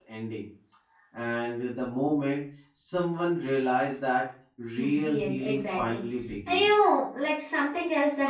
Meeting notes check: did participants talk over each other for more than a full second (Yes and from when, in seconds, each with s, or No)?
Yes, from 4.8 s